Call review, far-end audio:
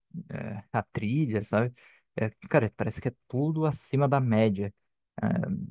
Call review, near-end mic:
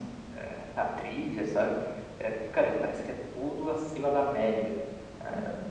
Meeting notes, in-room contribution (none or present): none